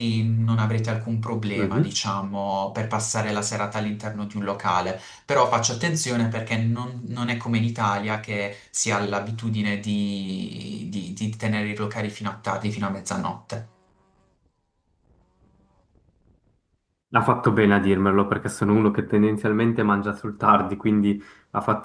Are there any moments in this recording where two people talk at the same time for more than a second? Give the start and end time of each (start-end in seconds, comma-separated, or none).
none